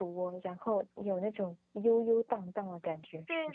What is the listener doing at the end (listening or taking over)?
taking over